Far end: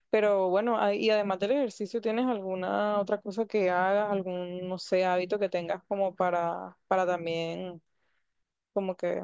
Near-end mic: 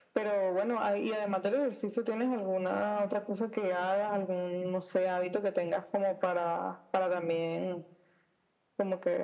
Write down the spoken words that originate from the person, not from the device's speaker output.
none

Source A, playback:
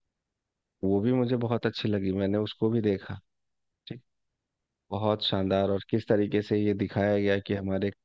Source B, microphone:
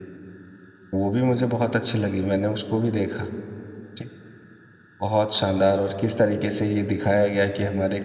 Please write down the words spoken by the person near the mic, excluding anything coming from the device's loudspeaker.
none

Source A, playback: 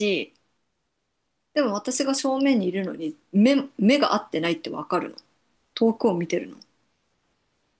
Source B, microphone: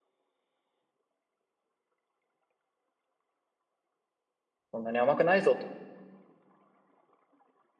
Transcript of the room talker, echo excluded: そんなに甘くないぞと。

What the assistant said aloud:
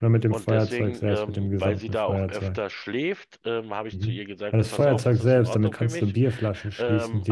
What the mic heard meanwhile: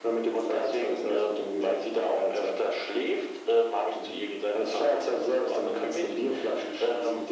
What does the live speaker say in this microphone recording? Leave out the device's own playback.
none

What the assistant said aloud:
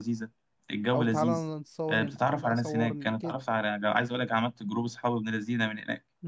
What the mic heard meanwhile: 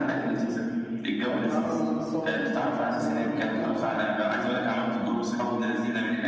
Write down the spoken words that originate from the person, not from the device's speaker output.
none

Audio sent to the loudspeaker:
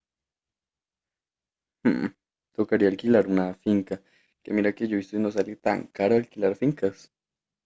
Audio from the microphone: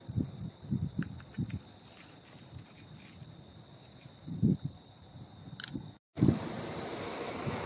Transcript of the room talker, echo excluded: none

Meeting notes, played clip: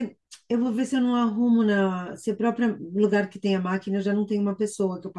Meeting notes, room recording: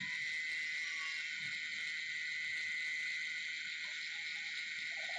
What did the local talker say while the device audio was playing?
none

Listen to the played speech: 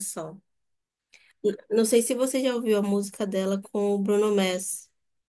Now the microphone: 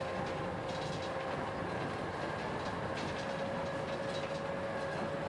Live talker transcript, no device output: none

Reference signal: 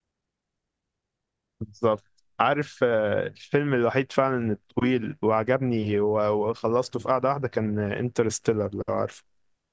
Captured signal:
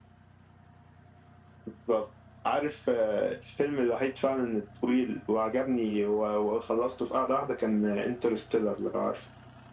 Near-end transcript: none

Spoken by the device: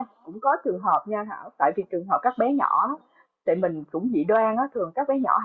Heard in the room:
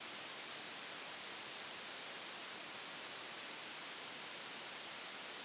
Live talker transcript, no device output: none

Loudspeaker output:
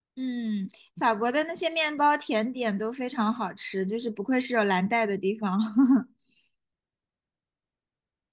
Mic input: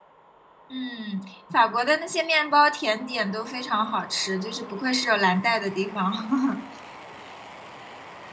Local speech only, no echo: none

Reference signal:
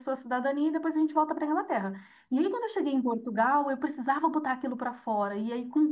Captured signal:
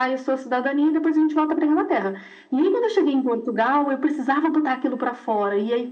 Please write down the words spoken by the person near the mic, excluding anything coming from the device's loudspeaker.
none

